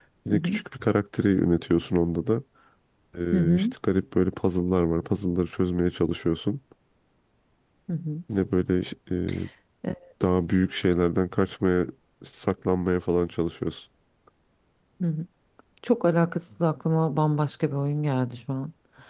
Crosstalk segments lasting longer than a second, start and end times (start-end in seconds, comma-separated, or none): none